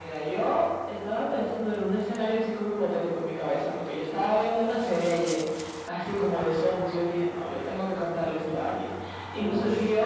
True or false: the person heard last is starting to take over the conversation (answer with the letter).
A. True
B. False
B